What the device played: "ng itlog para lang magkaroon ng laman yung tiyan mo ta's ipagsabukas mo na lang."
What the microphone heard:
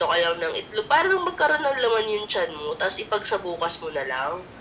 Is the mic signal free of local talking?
Yes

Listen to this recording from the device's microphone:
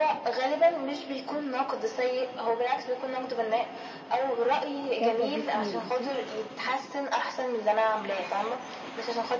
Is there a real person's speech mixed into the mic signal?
Yes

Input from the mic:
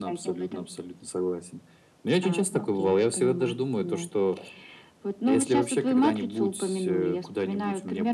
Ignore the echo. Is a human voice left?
No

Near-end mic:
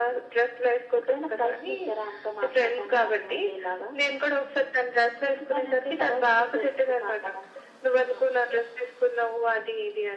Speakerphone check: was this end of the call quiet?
Yes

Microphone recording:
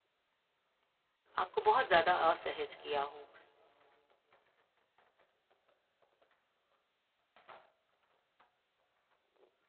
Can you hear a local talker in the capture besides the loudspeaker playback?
Yes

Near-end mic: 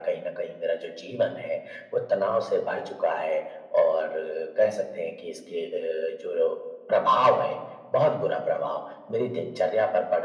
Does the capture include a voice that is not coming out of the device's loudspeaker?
No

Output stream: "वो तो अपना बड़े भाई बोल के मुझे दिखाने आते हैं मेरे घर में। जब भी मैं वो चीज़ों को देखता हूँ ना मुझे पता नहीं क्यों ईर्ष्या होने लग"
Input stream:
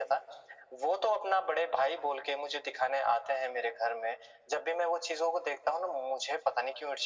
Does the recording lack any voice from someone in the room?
Yes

